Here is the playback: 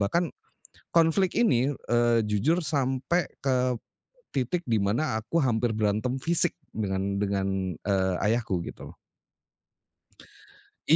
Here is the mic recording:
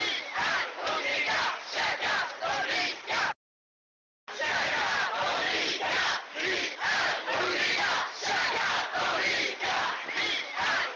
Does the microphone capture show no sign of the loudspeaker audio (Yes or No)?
Yes